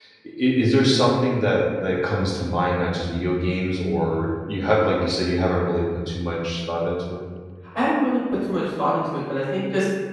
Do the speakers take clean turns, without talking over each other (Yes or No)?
Yes